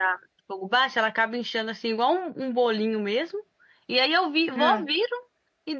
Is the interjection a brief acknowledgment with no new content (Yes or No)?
Yes